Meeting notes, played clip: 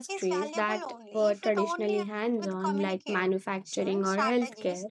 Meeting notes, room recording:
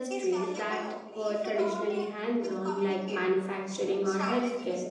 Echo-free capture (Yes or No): No